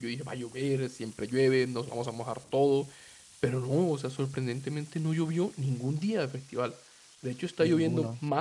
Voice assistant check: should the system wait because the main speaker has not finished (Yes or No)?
Yes